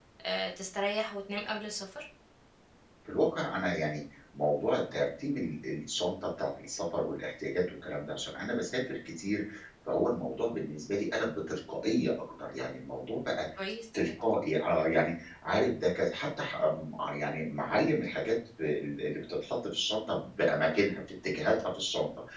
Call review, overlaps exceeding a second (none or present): none